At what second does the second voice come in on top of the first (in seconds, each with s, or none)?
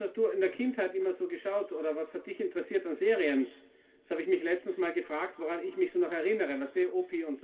none